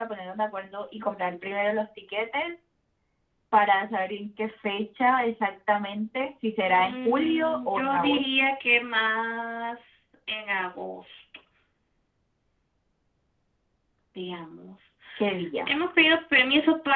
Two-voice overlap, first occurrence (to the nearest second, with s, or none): 7 s